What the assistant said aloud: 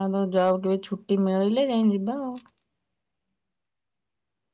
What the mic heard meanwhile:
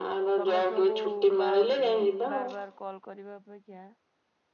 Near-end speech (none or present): present